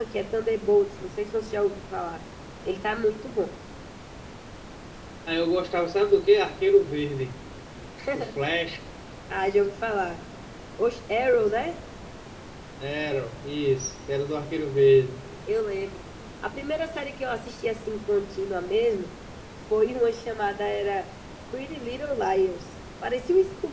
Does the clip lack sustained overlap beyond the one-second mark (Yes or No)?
Yes